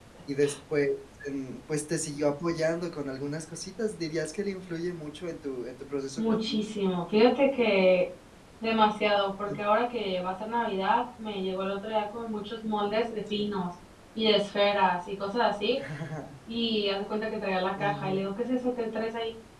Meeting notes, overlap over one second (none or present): none